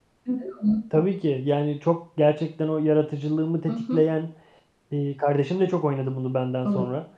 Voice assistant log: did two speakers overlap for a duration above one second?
No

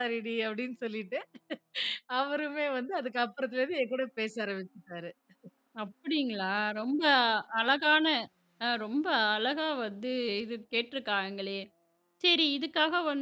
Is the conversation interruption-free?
Yes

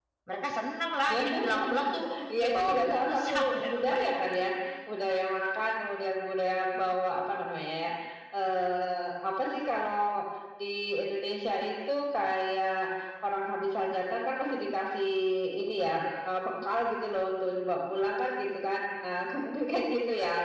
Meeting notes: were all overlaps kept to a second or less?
No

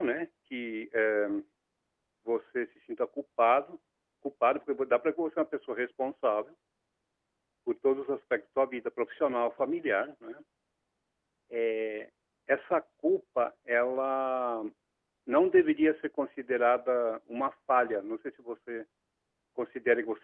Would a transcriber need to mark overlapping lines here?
No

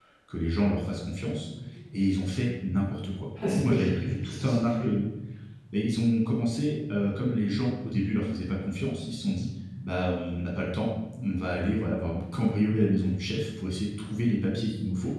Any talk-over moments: Yes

